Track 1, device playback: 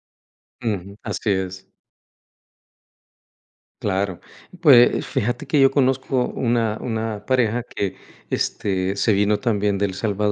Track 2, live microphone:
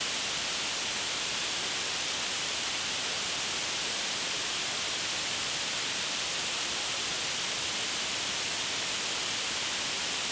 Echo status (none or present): none